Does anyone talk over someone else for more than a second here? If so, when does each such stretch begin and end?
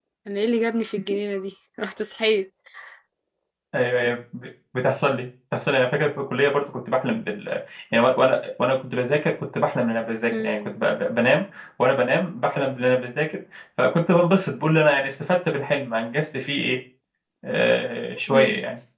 none

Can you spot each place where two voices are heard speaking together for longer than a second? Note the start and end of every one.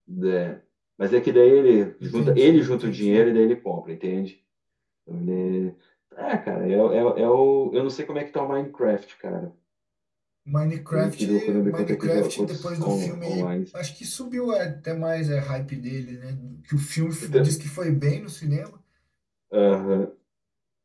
2.0-3.2, 10.9-13.5

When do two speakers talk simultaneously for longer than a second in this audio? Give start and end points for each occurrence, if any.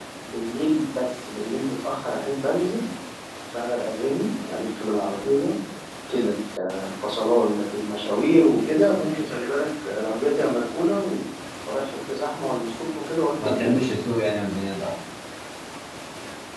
none

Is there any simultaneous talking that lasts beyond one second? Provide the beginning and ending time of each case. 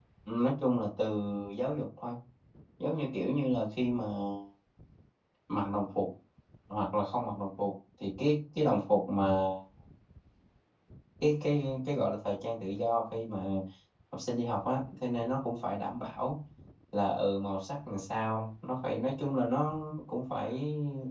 none

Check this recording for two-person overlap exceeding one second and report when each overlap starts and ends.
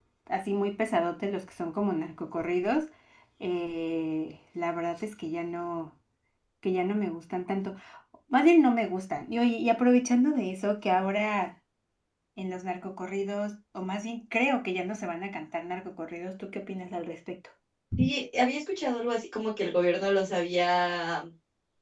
none

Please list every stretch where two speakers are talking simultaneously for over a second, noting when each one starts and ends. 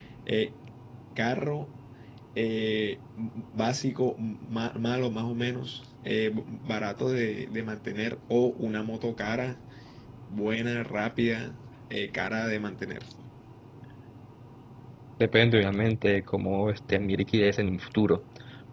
none

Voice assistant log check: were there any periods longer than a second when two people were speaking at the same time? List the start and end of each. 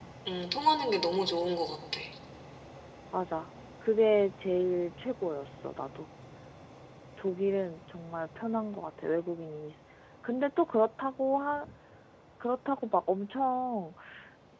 none

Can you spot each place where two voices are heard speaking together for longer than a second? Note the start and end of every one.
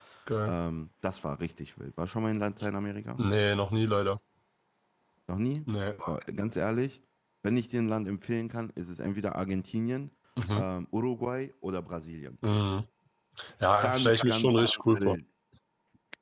13.8-15.2

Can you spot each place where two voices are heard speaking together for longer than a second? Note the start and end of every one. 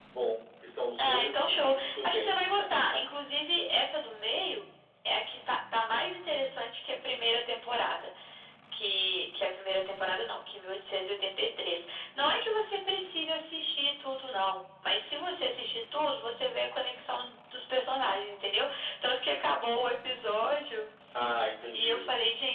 1.0-2.3

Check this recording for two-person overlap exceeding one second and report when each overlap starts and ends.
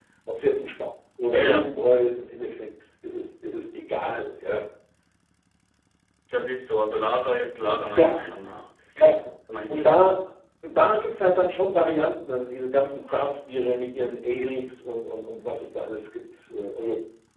none

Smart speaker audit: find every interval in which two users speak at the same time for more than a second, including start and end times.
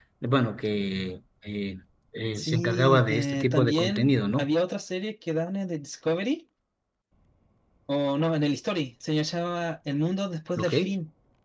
2.4-4.5

